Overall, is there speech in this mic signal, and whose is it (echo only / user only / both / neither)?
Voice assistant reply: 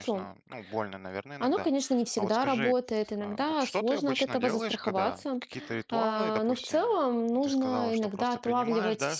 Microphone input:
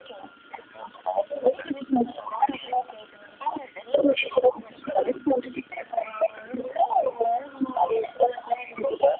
echo only